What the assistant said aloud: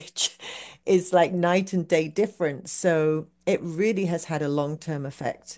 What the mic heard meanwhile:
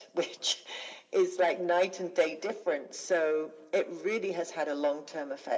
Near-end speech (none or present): none